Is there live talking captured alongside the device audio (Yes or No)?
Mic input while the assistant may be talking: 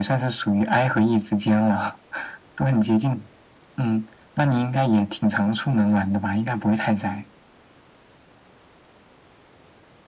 No